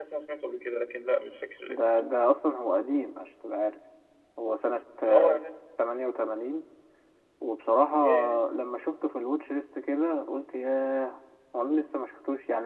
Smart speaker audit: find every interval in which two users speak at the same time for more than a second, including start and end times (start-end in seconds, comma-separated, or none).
none